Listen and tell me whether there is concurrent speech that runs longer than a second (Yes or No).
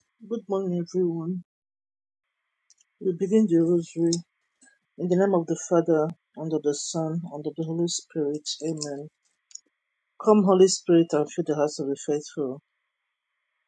No